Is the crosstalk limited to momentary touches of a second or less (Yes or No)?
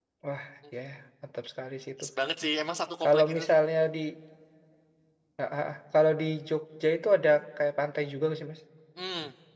Yes